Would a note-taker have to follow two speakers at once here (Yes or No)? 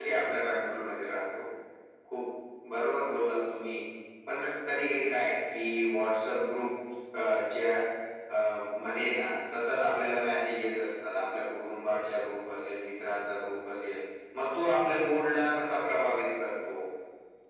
No